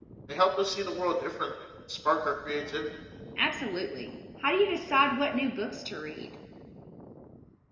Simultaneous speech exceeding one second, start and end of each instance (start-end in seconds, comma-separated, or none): none